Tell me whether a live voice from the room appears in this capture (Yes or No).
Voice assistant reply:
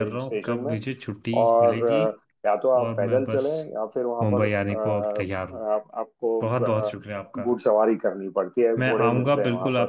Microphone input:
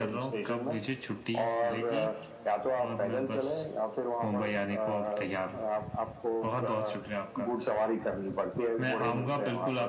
No